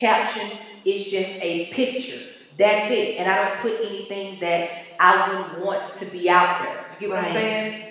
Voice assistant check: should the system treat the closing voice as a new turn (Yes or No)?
Yes